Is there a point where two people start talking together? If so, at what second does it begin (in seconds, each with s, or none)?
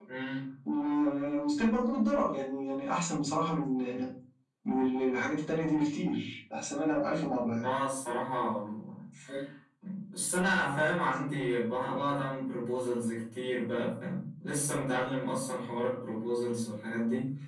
none